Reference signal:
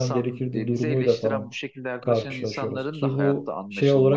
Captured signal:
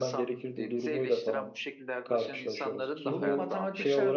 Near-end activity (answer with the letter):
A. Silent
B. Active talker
B